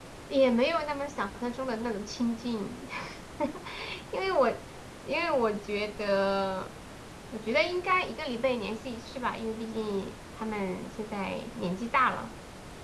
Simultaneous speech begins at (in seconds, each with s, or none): none